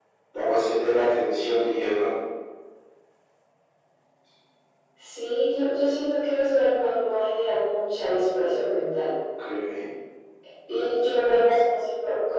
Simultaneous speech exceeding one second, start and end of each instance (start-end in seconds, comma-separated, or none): none